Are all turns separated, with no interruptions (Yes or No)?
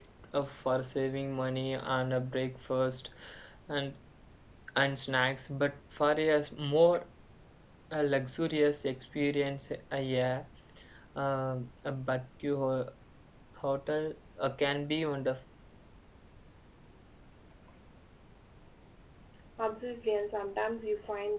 Yes